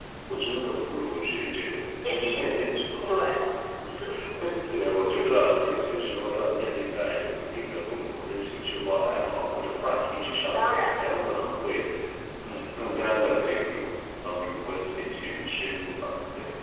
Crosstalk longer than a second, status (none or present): none